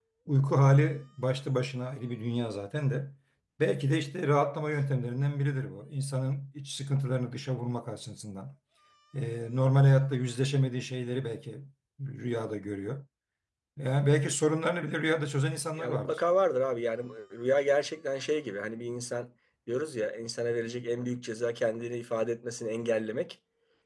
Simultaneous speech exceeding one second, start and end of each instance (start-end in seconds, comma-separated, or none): none